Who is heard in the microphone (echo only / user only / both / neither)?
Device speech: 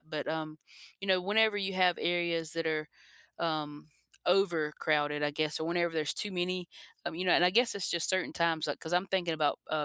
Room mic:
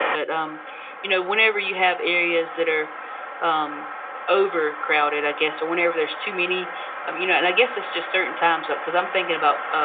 echo only